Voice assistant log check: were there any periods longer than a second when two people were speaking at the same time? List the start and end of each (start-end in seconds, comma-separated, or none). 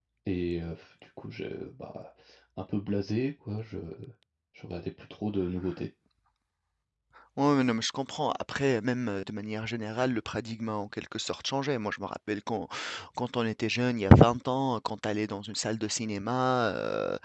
none